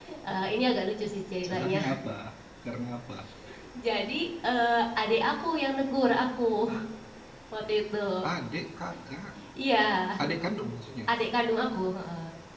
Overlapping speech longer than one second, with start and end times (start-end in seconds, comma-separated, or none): none